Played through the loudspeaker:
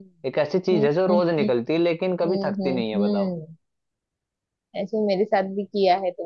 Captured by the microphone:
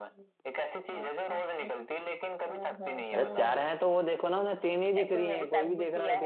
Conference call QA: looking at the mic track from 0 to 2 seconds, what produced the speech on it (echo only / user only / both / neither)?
echo only